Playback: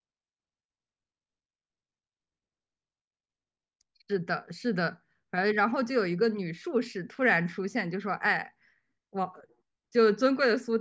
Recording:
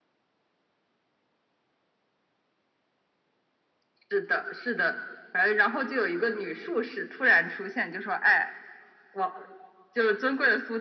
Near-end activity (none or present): none